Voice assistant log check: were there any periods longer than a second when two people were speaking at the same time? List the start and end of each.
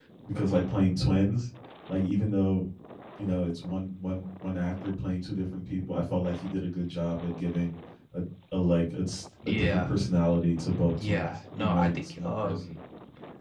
11.0-12.7

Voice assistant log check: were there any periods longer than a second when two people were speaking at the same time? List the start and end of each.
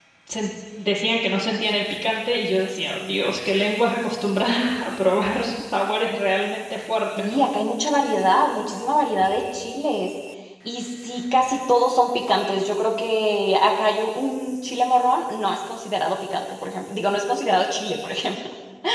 none

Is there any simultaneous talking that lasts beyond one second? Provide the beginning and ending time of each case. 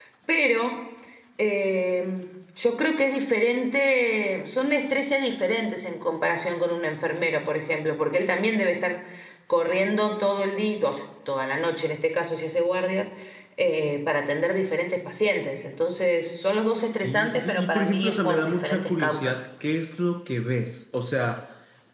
16.8-19.4

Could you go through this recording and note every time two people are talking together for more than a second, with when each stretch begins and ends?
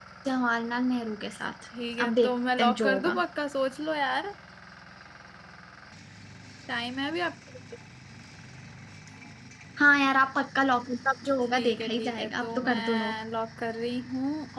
2.0-3.2, 11.5-13.2

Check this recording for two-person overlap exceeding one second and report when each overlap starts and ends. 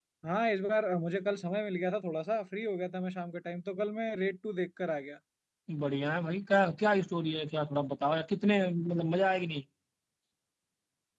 none

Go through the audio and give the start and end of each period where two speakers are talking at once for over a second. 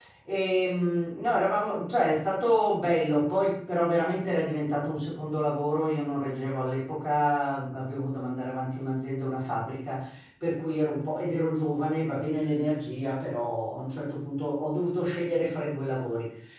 none

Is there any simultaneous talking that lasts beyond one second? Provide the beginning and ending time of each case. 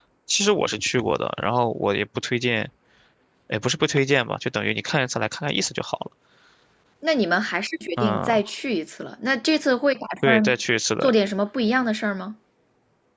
none

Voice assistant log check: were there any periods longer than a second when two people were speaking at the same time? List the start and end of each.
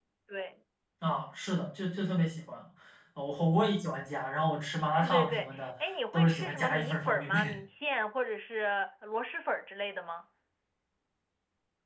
5.0-7.5

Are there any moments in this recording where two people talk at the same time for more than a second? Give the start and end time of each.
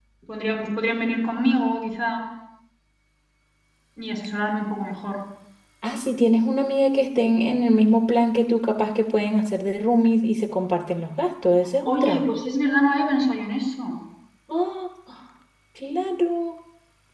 none

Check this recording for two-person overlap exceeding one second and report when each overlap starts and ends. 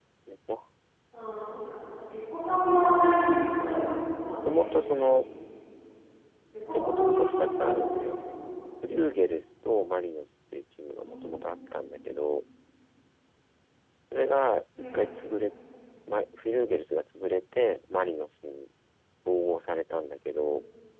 3.6-5.2, 6.7-8.3

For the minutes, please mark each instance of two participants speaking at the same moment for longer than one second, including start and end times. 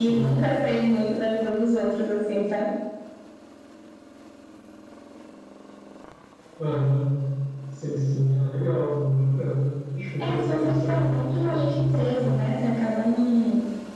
10.2-12.4

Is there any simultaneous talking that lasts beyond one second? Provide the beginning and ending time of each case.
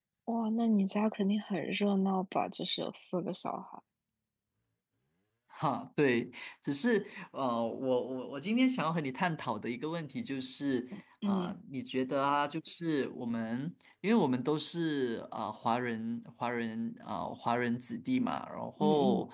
none

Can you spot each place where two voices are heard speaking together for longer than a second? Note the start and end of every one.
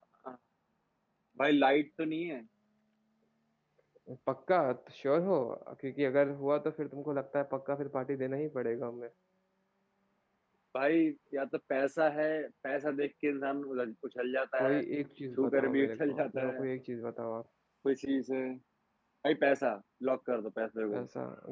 15.4-16.6

